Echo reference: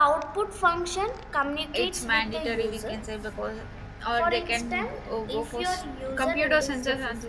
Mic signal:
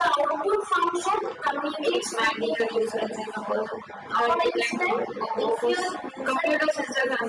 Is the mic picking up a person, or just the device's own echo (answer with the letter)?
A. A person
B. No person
B